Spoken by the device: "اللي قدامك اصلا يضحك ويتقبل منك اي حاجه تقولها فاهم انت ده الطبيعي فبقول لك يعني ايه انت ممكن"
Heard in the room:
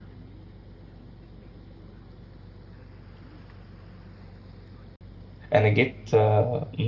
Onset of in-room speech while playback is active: 5.6 s

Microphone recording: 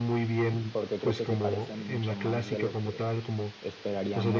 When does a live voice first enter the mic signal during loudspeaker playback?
0.7 s

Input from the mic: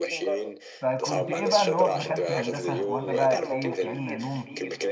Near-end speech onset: 0.8 s

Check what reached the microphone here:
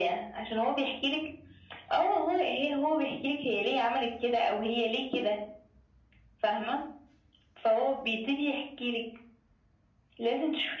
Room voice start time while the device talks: none

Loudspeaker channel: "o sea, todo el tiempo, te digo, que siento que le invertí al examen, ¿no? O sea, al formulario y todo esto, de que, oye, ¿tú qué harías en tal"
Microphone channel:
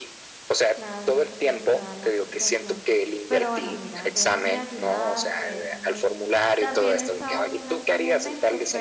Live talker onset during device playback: 0.7 s

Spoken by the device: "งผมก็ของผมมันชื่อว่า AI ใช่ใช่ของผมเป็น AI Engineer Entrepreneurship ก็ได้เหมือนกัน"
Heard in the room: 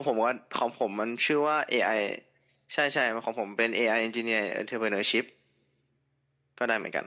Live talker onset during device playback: none

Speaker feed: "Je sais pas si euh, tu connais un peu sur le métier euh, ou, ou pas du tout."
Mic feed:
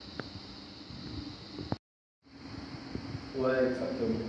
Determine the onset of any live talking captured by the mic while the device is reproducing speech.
3.3 s

